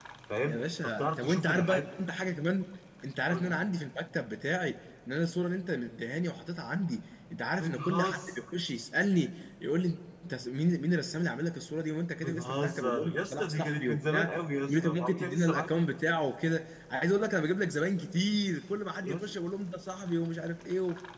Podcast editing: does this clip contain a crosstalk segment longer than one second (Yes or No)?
Yes